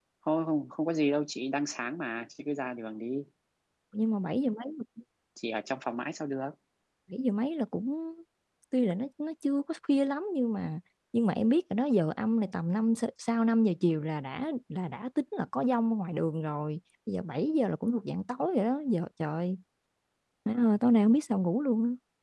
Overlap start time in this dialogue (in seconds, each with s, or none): none